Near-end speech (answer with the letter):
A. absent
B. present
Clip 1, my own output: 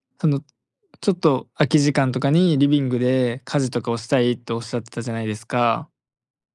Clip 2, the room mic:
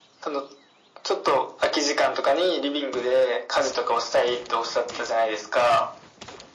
A